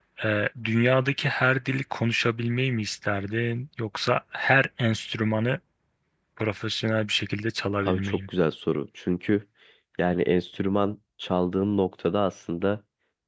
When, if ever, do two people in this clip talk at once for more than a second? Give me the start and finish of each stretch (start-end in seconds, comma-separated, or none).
none